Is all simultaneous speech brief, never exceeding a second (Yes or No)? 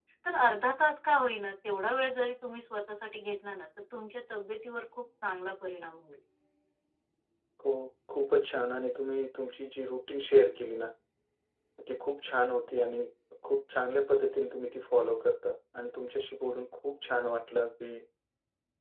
Yes